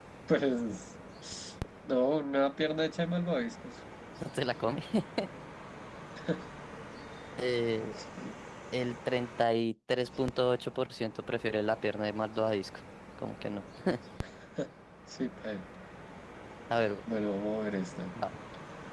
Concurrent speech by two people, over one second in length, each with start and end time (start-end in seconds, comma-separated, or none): none